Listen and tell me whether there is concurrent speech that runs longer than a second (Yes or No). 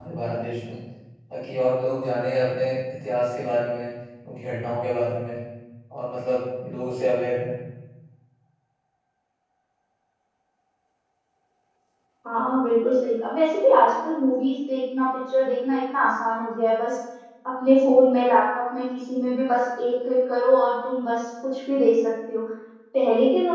No